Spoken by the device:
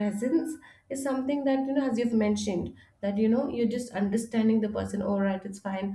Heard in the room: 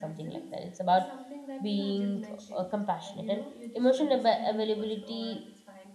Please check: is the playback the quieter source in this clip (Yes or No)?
Yes